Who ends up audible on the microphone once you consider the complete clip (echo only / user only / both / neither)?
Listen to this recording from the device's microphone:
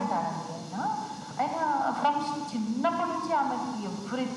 echo only